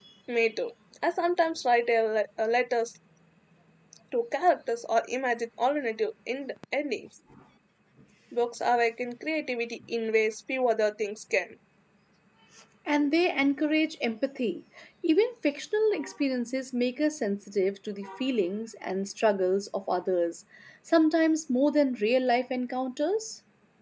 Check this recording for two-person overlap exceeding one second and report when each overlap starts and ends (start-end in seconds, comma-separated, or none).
none